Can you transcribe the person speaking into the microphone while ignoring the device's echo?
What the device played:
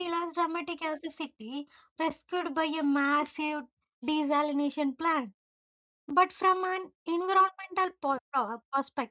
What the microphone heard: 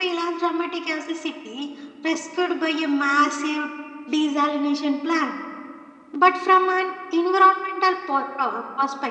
none

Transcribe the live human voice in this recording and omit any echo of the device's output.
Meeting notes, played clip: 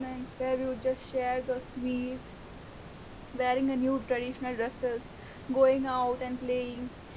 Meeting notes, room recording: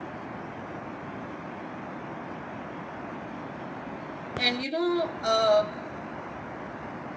And you know, uh,

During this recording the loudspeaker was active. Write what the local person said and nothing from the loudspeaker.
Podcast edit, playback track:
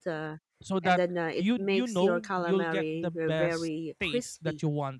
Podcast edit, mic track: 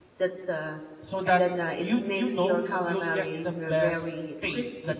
none

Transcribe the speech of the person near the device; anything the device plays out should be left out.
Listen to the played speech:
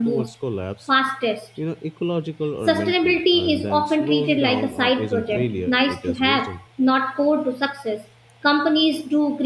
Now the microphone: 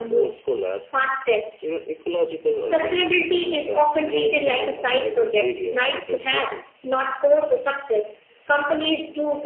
none

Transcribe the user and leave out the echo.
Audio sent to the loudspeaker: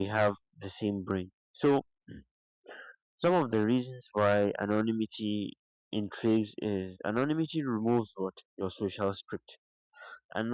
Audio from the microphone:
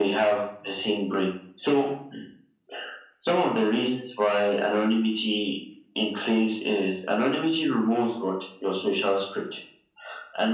none

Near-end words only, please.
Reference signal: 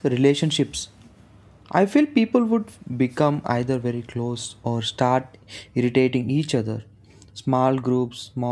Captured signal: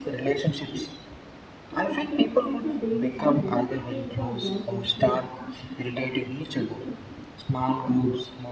Like it's like simple daily habits we take for granted here

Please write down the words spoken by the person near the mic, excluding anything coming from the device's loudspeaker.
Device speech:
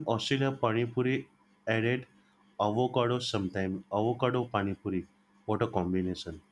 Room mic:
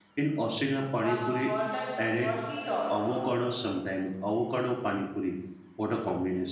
Wah, what a, what he taught.

